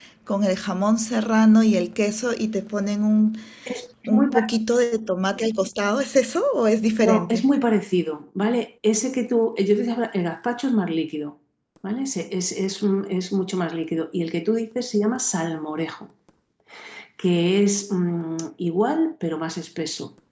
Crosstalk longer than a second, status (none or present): none